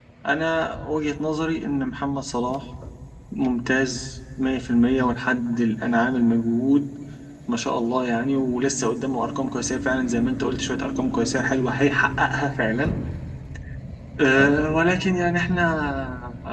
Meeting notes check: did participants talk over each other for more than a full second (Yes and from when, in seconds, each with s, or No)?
No